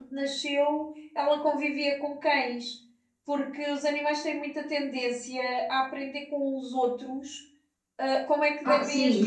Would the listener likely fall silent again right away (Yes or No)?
No